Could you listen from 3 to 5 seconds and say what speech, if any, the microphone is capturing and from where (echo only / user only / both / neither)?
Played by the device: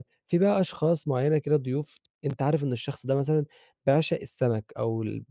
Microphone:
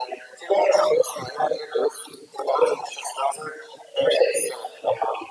echo only